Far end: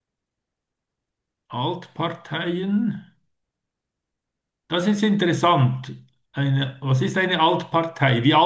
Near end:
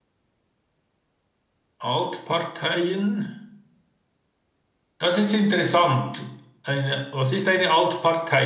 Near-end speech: none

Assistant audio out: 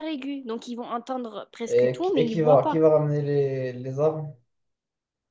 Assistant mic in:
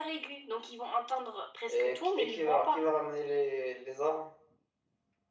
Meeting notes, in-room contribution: none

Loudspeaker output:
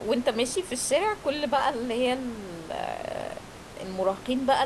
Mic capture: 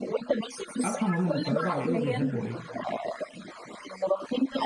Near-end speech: present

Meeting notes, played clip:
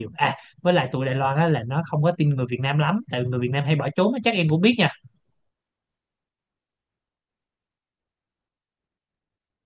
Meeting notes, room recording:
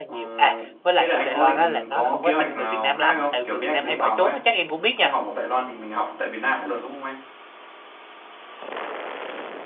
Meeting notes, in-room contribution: present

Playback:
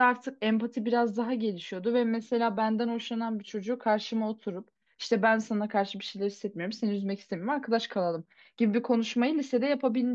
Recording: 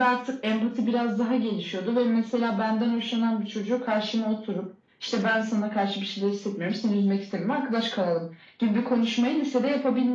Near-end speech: none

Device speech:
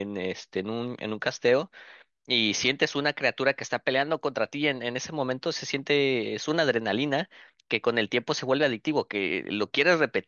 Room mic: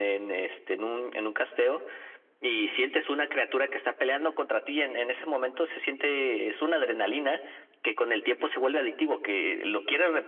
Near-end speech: none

